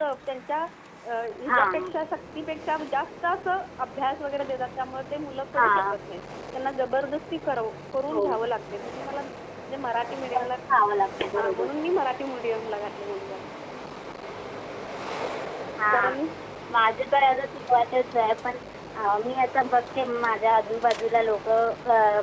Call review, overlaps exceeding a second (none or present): none